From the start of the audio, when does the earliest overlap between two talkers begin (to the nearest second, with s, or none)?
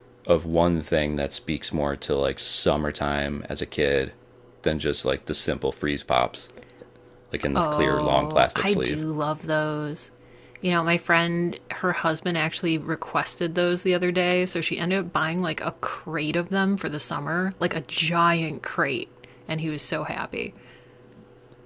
8 s